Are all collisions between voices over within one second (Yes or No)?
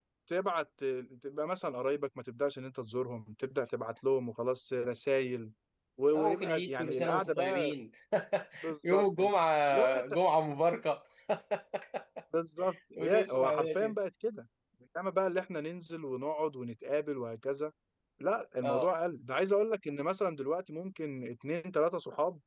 No